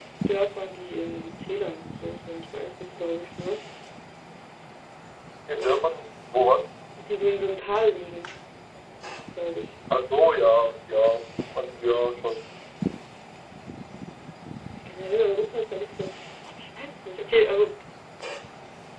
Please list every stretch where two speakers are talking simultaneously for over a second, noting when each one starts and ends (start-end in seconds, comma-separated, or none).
none